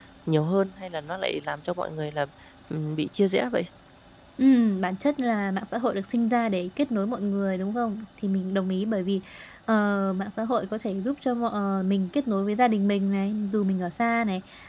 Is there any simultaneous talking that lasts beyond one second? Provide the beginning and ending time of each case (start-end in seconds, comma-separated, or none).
none